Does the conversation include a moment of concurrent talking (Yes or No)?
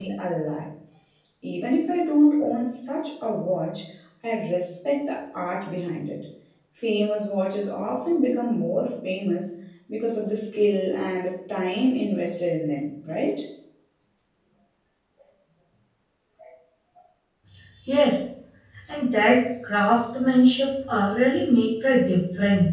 No